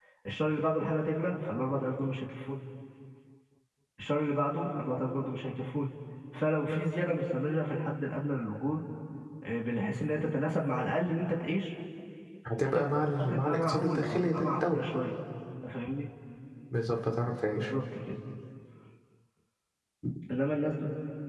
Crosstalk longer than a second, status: present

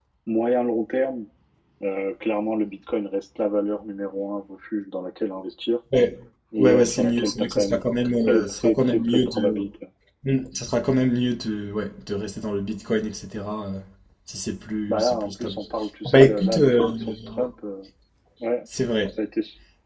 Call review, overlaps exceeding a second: present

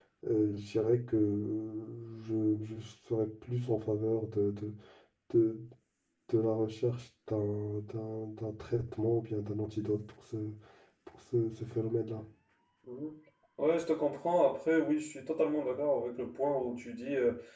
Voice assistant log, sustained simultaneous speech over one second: none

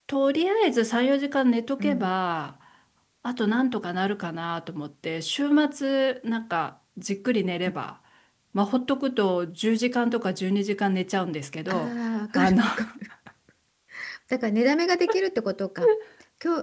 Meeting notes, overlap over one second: none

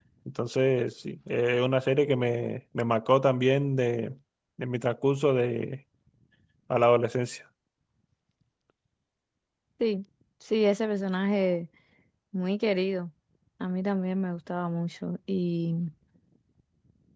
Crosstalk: none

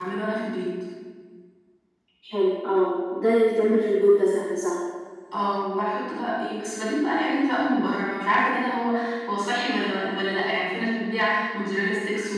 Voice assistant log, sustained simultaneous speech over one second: none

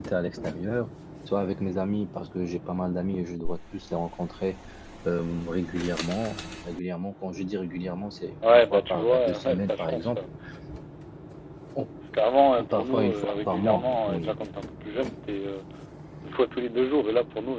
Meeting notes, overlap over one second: present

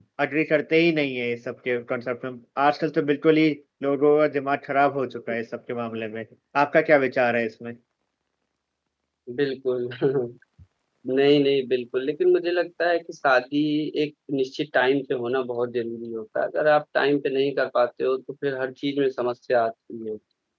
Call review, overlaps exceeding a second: none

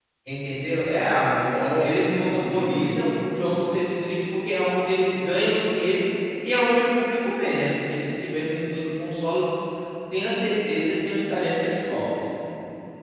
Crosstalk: present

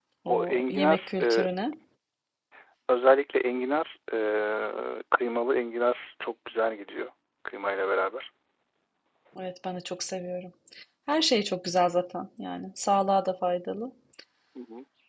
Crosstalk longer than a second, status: present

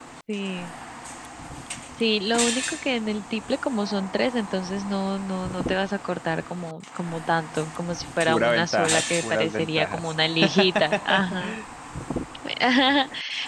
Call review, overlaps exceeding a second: present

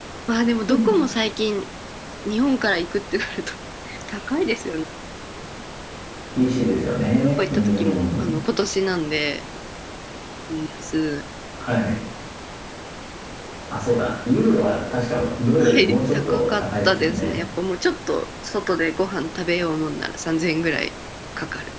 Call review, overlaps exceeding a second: present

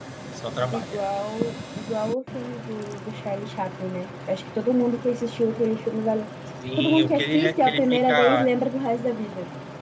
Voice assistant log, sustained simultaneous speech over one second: present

